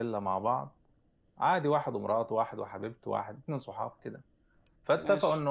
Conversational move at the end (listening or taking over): listening